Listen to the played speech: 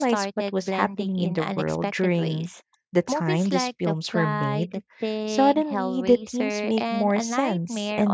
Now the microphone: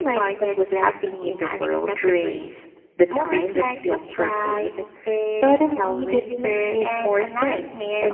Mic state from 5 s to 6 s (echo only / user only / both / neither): echo only